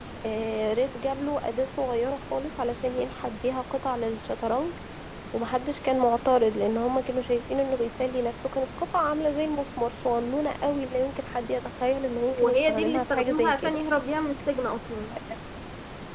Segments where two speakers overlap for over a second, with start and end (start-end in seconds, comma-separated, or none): 12.3-13.8